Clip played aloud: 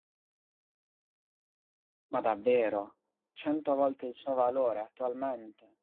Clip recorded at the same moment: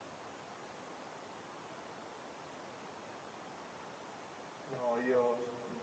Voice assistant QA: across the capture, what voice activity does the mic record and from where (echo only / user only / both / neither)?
user only